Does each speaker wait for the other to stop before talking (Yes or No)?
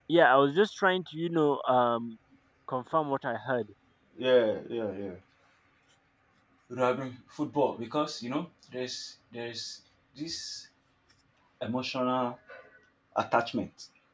Yes